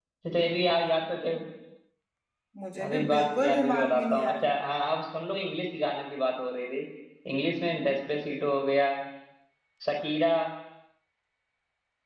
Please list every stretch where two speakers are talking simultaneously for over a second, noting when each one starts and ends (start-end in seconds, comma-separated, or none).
2.8-4.3